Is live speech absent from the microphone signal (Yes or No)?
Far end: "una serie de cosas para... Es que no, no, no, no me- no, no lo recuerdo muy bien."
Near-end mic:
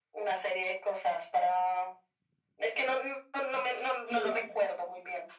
No